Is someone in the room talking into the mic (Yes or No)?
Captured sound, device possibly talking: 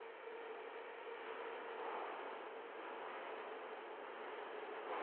No